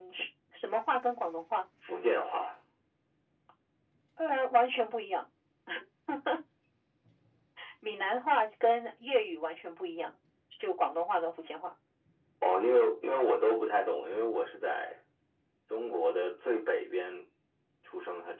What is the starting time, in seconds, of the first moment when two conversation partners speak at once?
none

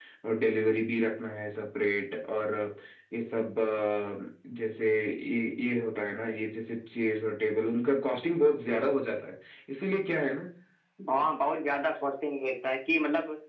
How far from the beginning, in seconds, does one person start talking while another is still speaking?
none

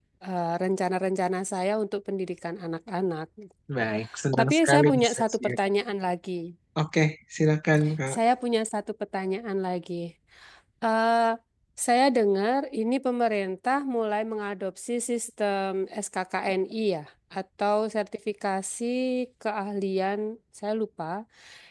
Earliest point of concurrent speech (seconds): 4.4 s

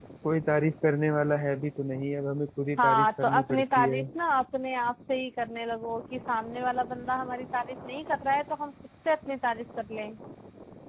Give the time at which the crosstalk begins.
2.8 s

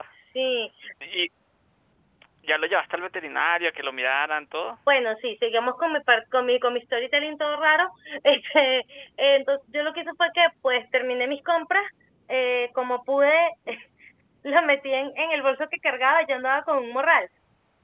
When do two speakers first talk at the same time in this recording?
none

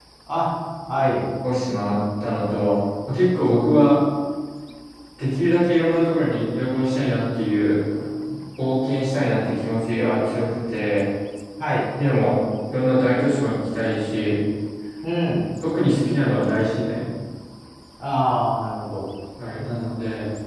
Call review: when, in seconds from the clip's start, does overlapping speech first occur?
none

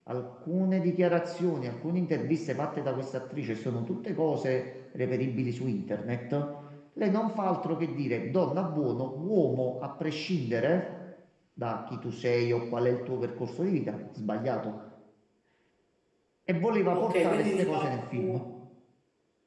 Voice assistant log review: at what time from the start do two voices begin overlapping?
16.9 s

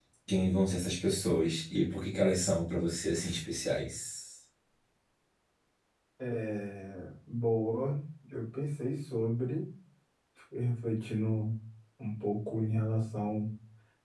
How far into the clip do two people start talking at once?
none

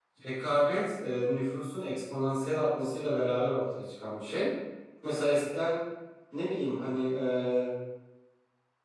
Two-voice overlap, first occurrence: none

